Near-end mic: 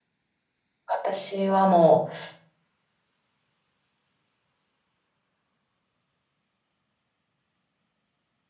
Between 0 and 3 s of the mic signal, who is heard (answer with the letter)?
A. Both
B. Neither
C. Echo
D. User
D